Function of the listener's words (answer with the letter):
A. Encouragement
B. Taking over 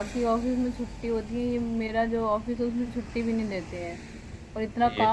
A